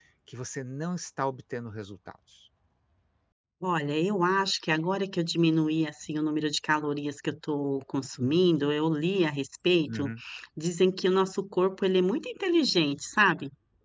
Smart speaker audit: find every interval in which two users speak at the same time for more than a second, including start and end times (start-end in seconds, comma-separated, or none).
none